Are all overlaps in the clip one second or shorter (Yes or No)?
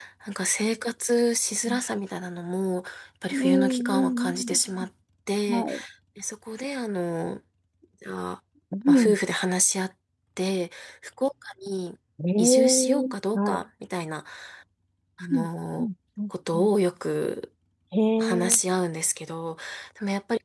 No